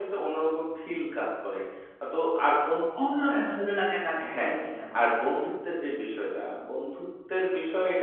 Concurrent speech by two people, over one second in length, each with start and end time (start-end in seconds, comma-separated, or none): none